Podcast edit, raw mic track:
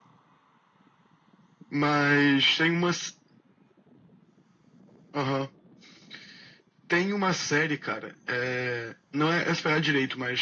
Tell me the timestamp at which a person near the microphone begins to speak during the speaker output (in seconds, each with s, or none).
none